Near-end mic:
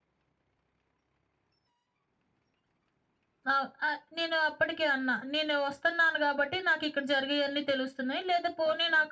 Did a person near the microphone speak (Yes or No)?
No